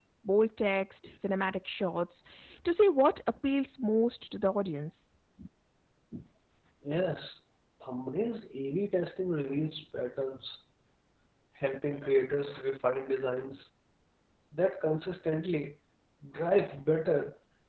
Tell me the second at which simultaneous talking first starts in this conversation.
none

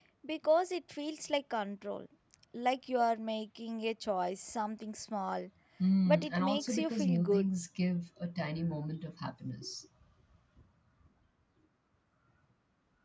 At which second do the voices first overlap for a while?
6.1 s

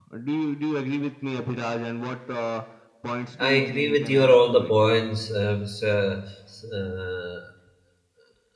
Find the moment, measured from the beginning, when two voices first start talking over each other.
3.4 s

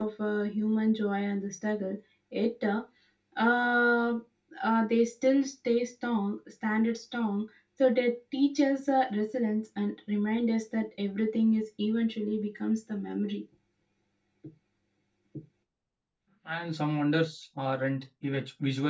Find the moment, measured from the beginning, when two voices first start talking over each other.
none

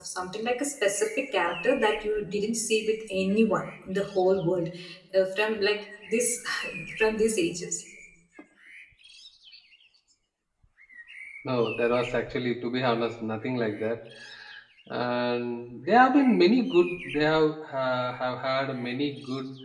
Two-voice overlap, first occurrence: none

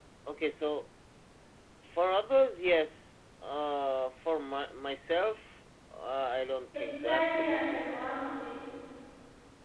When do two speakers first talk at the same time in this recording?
6.7 s

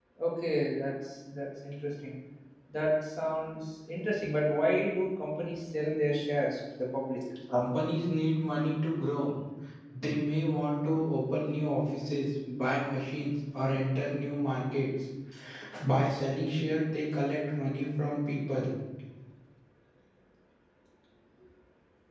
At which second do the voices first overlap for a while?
none

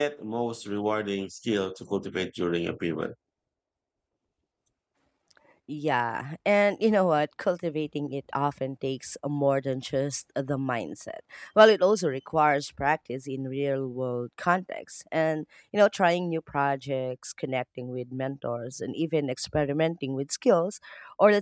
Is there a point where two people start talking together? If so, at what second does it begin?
none

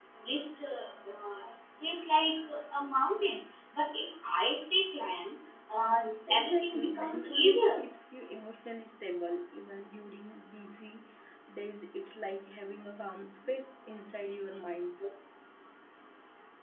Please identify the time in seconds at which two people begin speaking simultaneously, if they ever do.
6.3 s

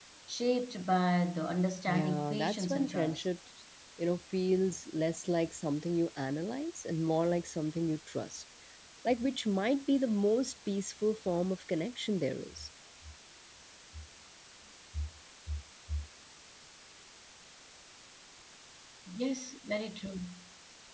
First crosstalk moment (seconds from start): 1.9 s

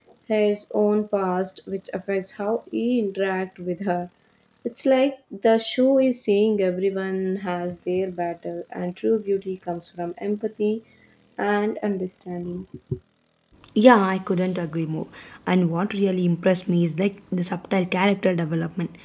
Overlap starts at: none

